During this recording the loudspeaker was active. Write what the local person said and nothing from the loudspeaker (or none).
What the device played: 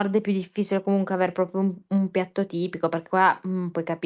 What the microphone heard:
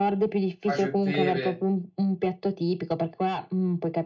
cacio e pepe,